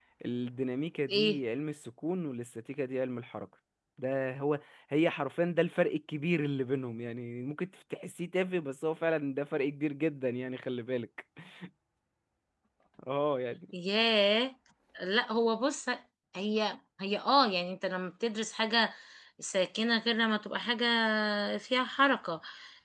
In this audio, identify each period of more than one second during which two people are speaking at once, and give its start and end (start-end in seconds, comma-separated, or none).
none